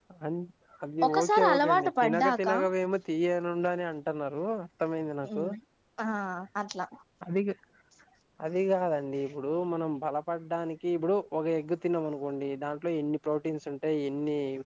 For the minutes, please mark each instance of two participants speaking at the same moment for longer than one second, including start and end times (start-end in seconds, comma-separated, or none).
1.1-2.5